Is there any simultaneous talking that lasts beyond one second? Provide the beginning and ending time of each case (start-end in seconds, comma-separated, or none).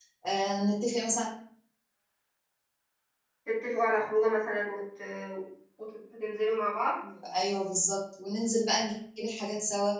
none